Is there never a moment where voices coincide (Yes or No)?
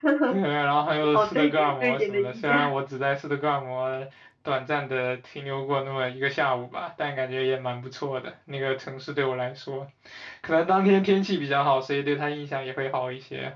No